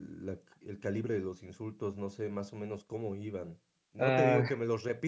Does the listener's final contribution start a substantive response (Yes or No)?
No